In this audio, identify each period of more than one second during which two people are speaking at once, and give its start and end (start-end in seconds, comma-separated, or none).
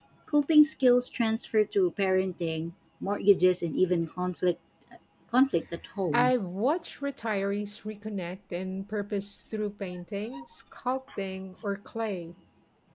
none